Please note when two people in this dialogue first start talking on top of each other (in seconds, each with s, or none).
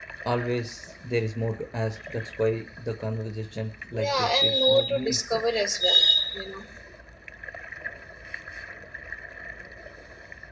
3.9 s